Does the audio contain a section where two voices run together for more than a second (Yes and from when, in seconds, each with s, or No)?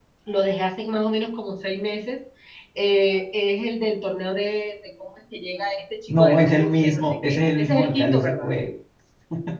Yes, from 6.1 s